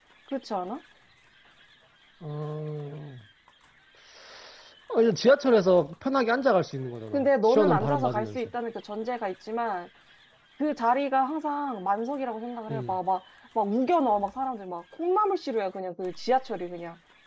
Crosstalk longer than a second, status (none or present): present